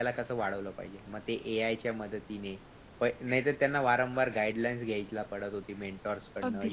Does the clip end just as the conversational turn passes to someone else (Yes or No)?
No